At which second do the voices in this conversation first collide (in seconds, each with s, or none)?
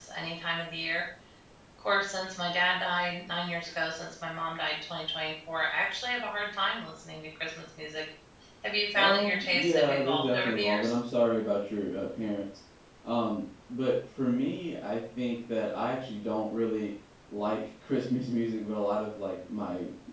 8.9 s